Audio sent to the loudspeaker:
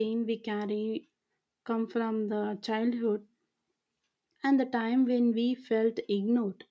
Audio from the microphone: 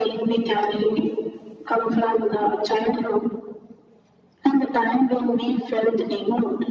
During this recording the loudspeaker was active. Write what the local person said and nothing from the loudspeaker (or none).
none